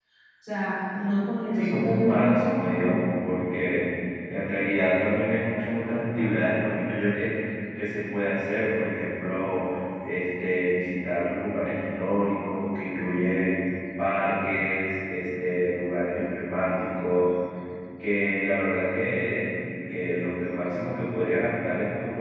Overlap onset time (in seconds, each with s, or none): 1.5 s